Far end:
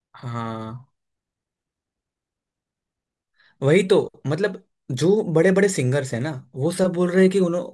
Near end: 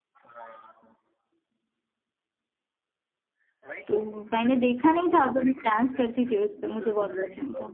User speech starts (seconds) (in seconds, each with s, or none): 3.9 s